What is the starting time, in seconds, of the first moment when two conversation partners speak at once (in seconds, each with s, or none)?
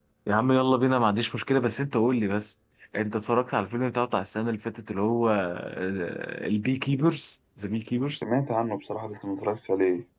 none